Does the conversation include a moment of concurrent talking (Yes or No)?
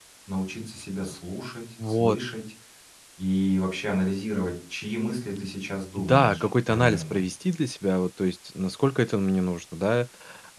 Yes